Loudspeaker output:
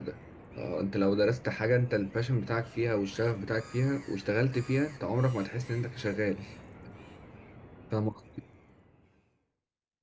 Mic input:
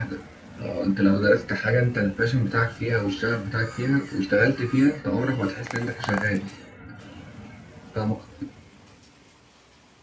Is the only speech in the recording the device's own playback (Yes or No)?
Yes